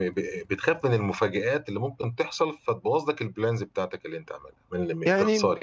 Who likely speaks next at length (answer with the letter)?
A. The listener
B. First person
A